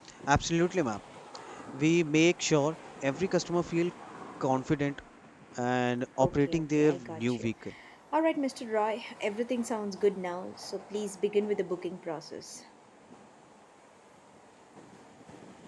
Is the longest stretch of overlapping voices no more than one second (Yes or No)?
No